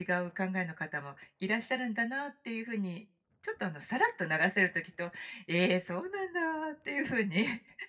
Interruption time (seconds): none

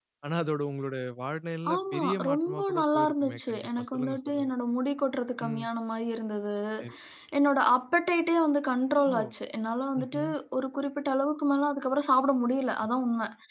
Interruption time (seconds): 2 s

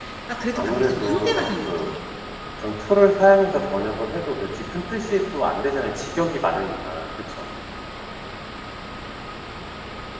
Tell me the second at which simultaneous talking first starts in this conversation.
1 s

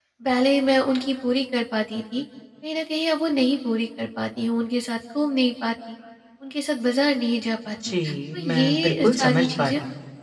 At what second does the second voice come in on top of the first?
8 s

